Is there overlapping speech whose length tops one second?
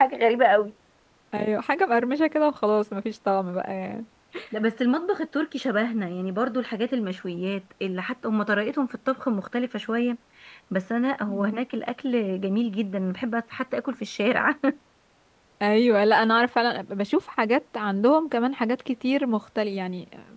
No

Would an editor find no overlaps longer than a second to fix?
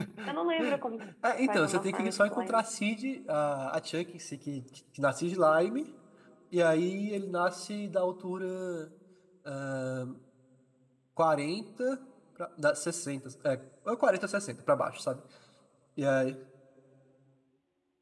No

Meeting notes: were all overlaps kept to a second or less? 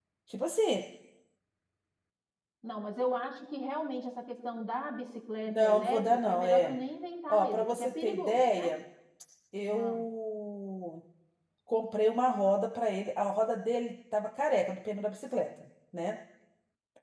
No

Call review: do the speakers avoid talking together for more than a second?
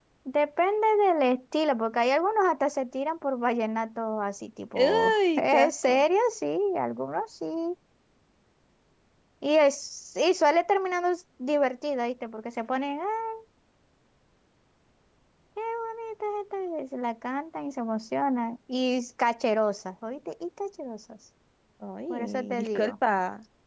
No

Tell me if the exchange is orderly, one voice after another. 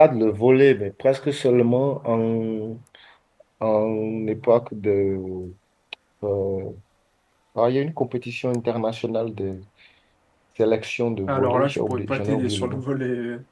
No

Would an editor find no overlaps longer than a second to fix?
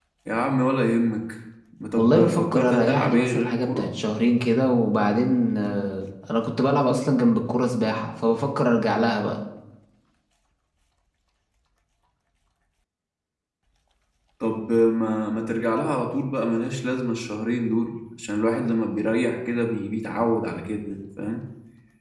No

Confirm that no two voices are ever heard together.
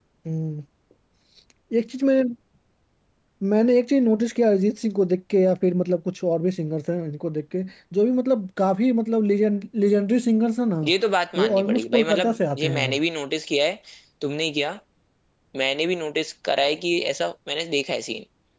No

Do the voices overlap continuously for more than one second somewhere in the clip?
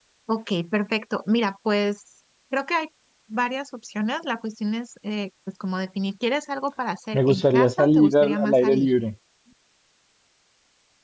Yes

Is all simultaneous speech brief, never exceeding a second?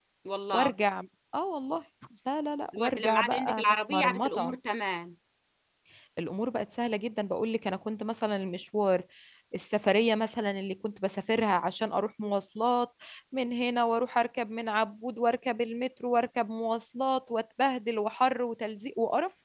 No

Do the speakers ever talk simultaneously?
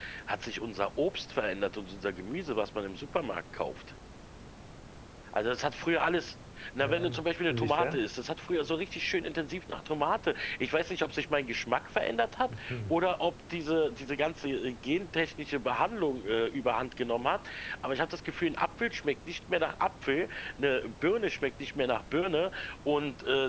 Yes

